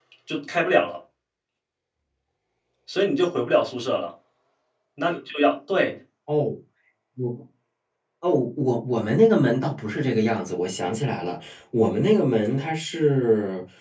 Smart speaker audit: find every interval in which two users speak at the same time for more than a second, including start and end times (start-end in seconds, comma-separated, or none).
none